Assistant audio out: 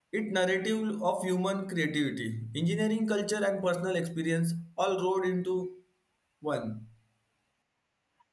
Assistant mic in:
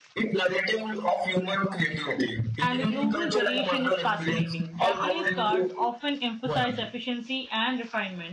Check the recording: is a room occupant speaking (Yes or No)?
Yes